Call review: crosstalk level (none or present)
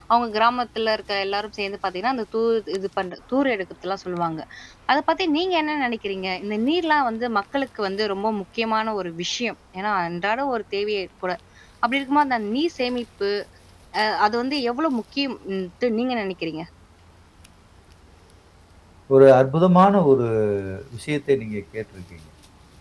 none